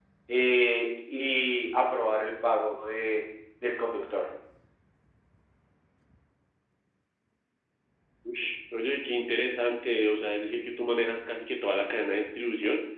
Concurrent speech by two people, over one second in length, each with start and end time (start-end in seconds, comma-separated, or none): none